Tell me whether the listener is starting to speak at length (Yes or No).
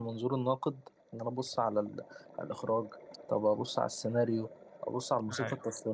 No